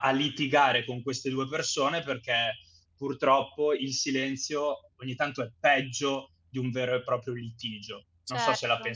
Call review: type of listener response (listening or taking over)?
taking over